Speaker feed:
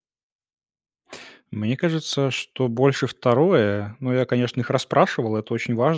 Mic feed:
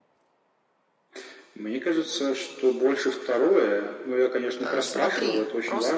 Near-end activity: present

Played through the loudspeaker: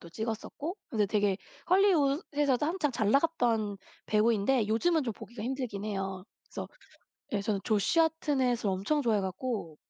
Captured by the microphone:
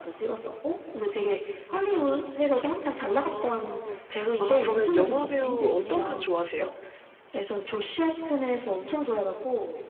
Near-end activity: present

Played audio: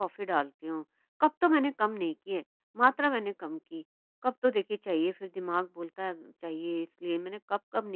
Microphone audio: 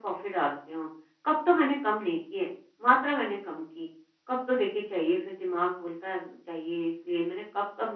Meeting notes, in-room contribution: none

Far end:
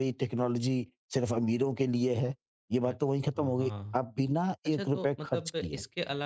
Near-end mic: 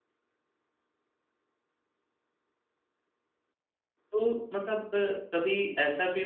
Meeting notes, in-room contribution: present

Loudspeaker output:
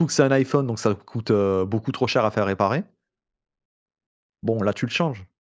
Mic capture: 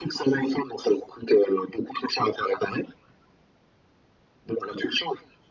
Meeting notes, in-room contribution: none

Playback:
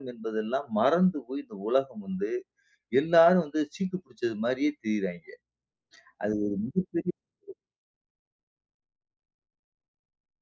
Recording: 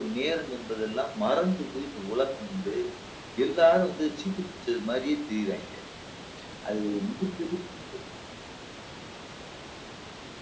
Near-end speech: none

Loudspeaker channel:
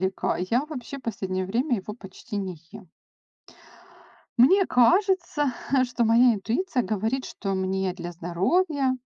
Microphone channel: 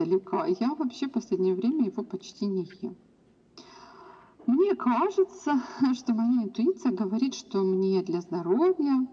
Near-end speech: none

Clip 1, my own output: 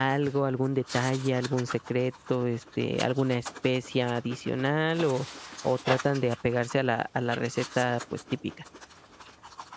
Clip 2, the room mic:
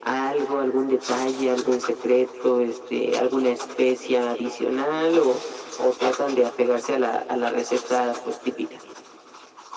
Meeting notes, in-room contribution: none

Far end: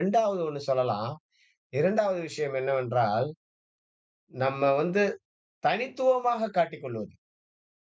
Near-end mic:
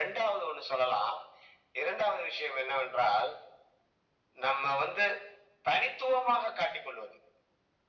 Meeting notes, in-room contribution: none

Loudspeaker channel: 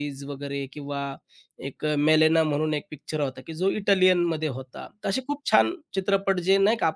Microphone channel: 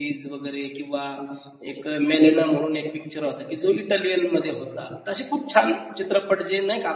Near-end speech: present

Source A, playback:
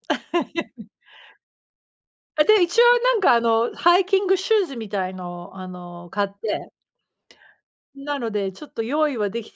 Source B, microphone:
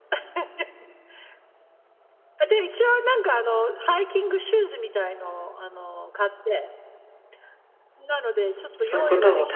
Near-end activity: present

